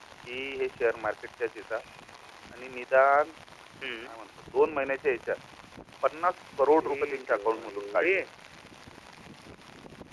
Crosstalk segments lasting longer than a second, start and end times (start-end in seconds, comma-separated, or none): 6.8-8.1